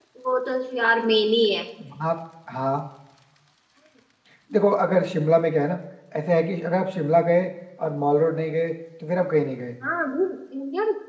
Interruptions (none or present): none